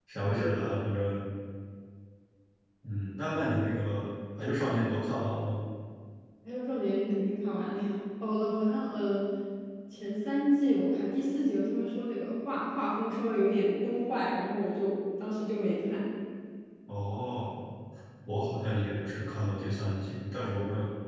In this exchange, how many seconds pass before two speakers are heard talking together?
none

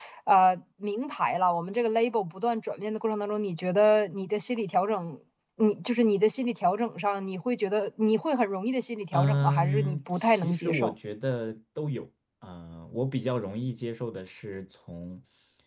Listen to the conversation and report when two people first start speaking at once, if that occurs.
9.1 s

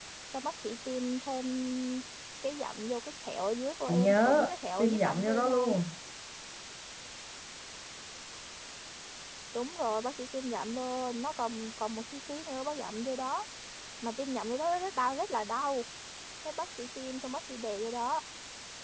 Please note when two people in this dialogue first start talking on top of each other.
3.9 s

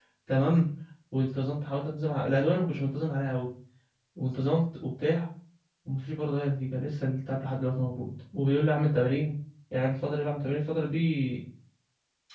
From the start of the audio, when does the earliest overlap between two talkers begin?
none

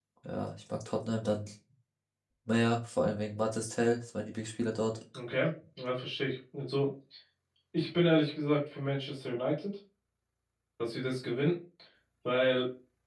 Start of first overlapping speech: none

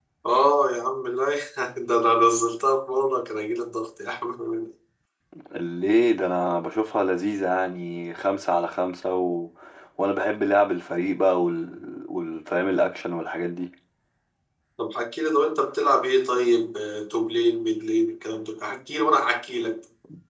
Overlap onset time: none

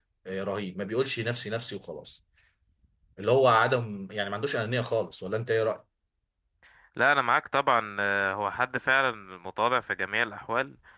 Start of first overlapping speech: none

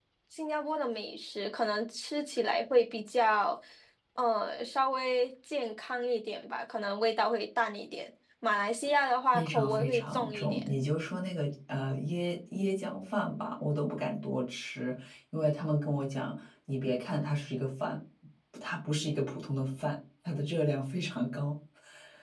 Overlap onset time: 9.3 s

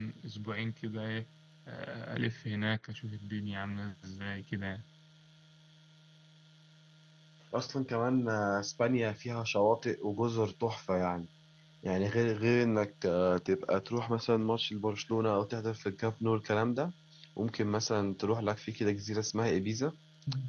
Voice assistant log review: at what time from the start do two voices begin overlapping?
none

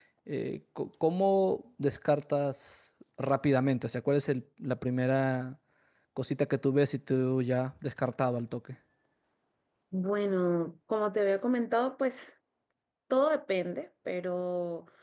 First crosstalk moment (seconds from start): none

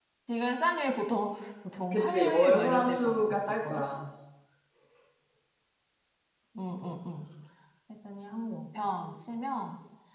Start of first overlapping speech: 1.9 s

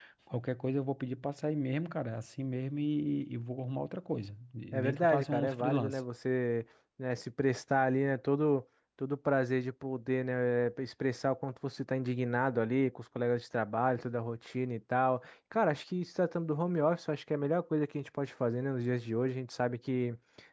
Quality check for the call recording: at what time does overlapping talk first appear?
4.7 s

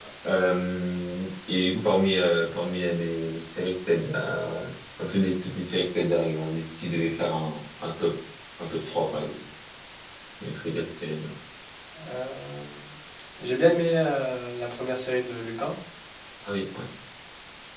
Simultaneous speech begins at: none

